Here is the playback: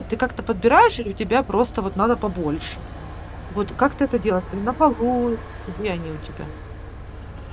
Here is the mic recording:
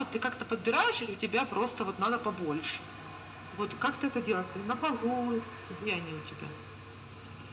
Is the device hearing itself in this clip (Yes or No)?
Yes